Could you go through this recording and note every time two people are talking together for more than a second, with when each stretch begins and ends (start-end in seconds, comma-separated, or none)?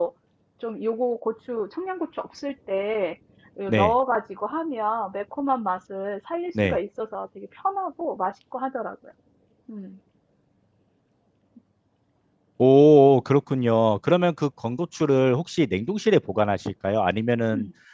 none